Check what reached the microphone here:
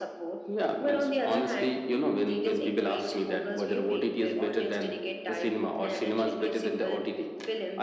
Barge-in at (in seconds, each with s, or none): none